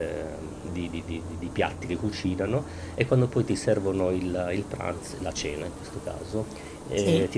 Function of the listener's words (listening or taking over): listening